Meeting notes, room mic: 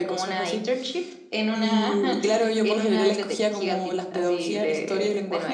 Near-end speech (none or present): none